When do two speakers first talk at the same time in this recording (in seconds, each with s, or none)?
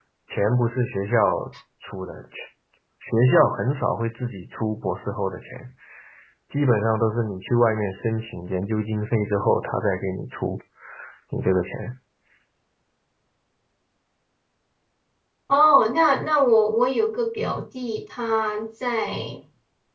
none